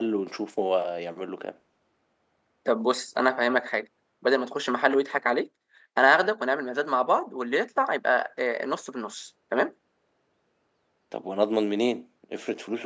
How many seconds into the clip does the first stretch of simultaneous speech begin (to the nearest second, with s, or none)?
none